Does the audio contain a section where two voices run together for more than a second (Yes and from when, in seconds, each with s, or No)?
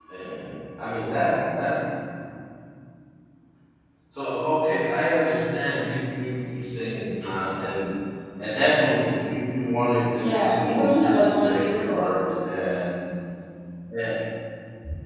Yes, from 10.2 s